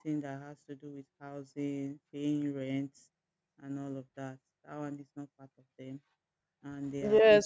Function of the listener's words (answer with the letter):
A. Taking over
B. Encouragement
A